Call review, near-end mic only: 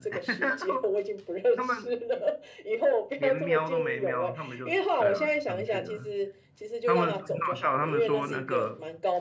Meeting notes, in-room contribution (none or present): present